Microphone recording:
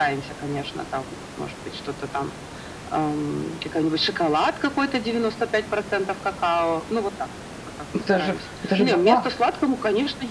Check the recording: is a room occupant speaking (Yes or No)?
Yes